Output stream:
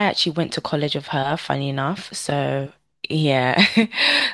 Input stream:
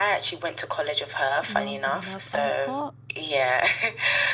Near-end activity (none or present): present